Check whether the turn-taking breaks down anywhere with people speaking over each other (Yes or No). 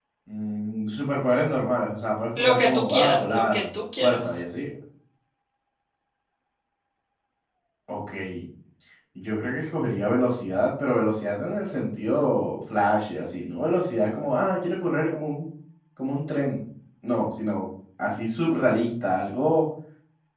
Yes